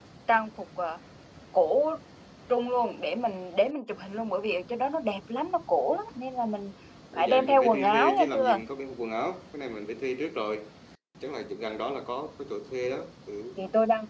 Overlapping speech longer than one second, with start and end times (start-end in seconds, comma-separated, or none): 7.1-8.6